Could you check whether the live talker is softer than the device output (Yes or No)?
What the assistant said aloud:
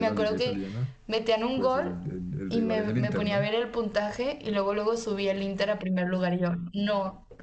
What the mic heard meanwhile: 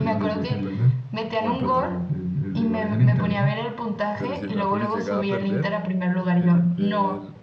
Yes